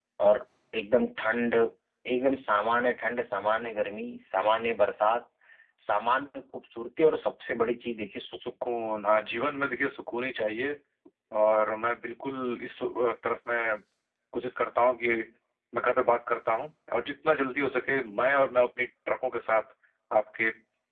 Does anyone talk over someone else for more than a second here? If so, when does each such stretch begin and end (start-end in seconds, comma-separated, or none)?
none